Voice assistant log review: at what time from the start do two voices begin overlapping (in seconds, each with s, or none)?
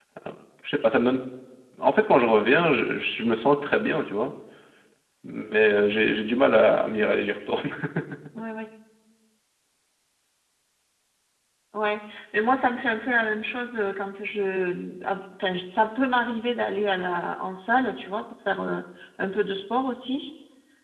none